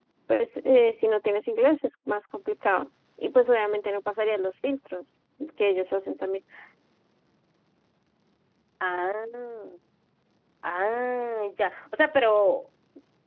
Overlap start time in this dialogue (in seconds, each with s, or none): none